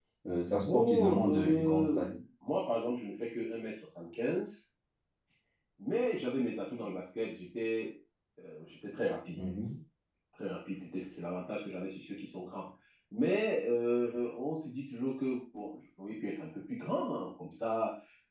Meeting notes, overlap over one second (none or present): present